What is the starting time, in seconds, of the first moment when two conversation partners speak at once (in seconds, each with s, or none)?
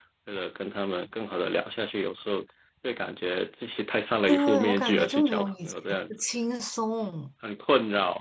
4.3 s